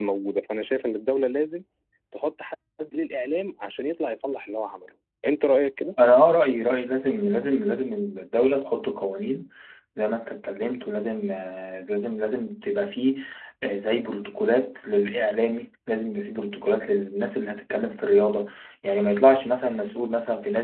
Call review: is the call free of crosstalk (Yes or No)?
Yes